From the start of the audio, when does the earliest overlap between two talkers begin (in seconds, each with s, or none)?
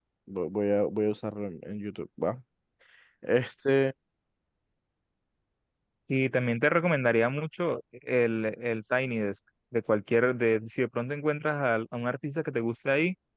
none